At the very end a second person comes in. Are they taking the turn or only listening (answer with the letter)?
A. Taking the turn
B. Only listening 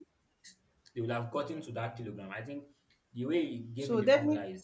A